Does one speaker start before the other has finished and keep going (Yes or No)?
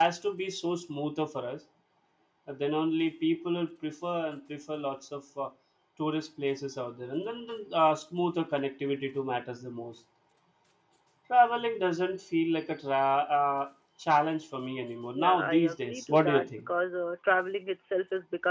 Yes